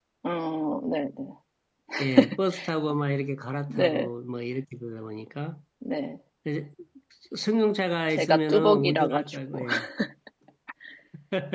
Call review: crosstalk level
present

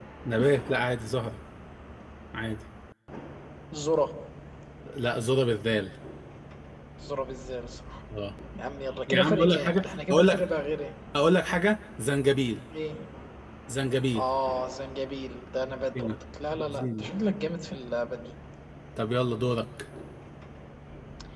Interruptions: present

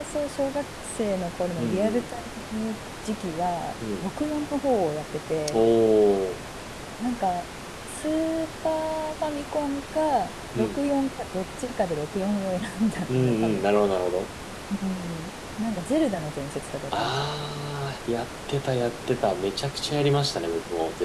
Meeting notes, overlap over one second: none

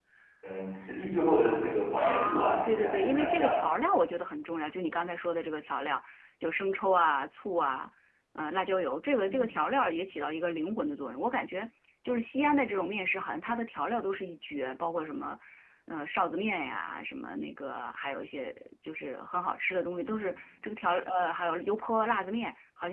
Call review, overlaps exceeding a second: present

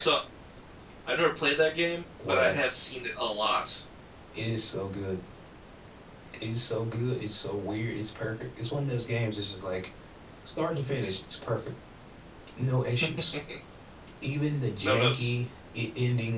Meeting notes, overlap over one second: none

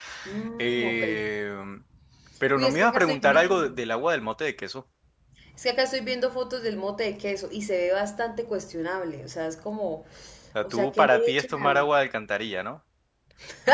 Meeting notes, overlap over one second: present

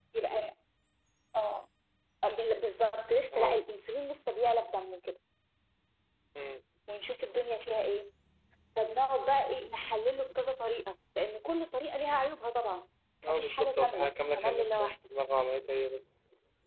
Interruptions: present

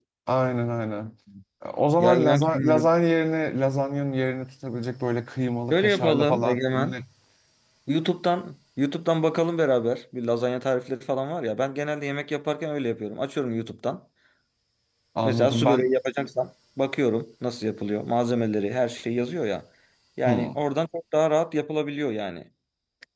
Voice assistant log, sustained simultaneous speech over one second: present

